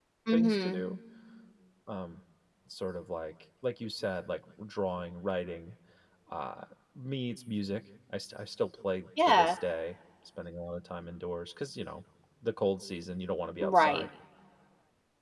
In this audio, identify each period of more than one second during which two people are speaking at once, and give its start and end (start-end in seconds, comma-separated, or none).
none